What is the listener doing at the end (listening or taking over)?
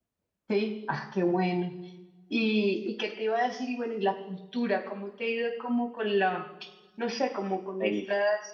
listening